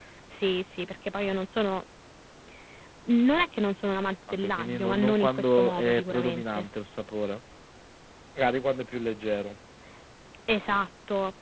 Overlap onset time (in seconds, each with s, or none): 4.4 s